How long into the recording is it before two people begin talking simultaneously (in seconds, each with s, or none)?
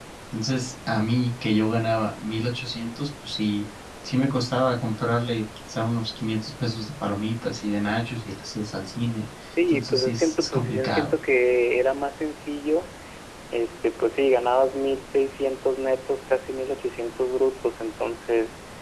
9.6 s